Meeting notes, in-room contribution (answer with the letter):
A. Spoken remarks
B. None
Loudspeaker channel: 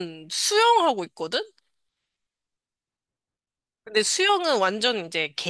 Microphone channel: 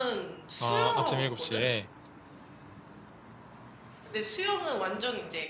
A